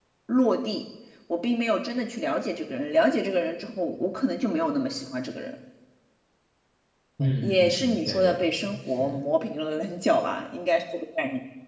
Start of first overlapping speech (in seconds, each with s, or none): 7.4 s